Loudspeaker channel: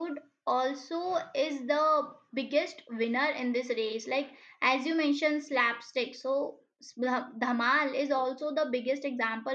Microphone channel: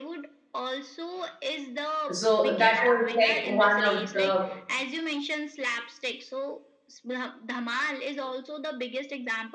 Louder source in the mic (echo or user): user